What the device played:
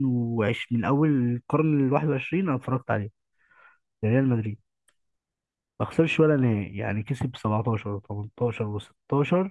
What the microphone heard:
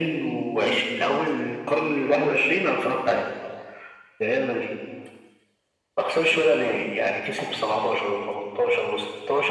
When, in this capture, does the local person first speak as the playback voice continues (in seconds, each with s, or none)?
none